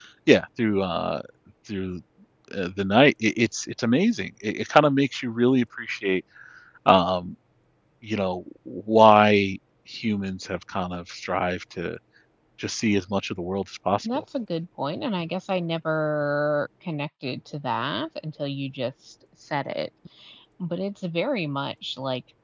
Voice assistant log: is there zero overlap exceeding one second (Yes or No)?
Yes